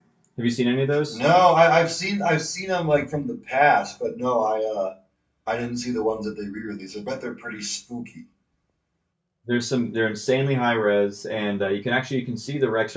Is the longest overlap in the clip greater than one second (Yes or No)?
No